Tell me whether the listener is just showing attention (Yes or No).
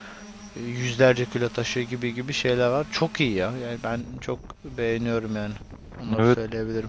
No